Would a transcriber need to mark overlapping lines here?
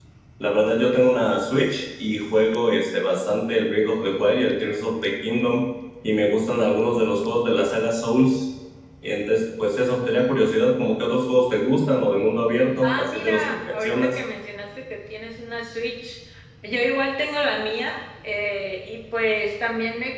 Yes, from 12.8 s

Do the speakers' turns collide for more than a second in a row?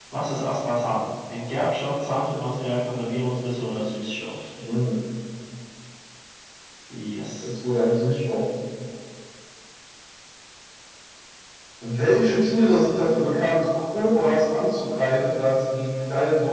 No

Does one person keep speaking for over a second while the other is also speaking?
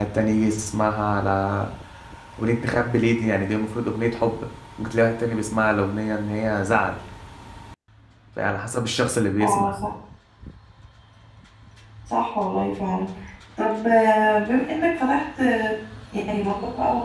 No

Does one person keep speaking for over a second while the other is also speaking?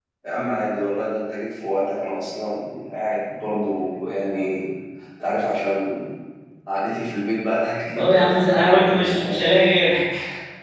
Yes, from 8.0 s

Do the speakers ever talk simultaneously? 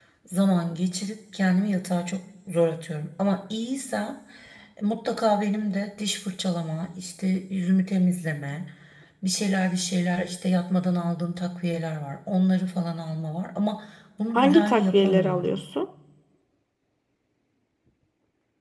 Yes, from 14.3 s

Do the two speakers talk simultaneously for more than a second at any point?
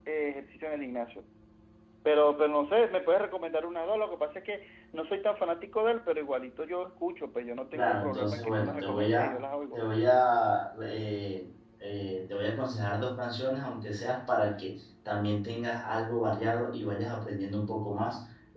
Yes, from 7.7 s

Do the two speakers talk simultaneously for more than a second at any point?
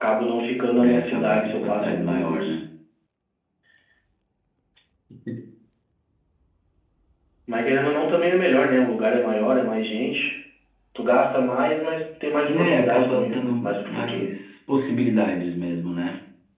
Yes, from 0.8 s

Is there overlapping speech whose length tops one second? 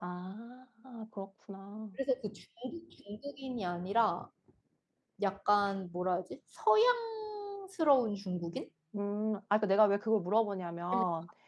No

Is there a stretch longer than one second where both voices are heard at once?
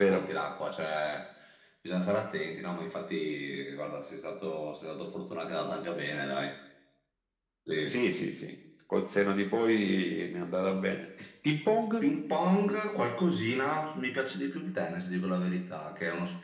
No

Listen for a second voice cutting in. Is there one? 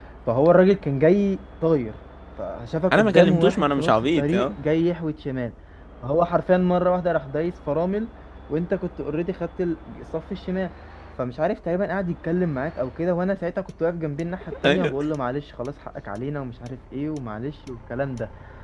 Yes, from 2.9 s

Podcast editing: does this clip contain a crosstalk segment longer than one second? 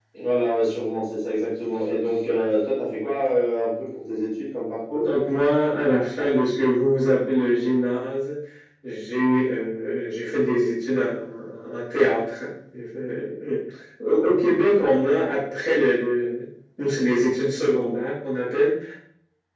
No

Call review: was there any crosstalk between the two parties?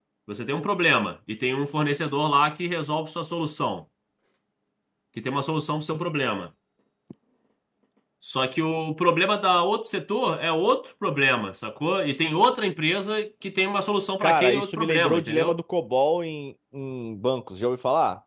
Yes, from 14.2 s

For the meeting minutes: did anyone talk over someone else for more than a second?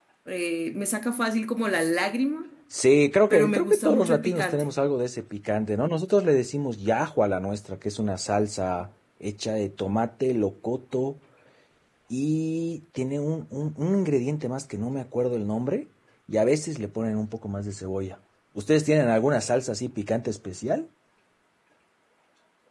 Yes, from 3.3 s

